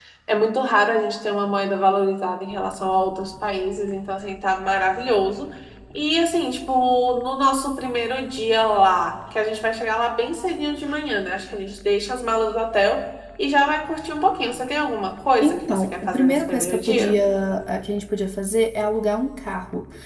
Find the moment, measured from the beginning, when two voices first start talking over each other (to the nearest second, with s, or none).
15 s